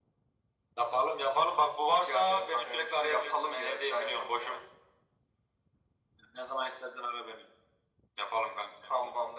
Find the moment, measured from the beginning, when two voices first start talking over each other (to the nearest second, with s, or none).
2 s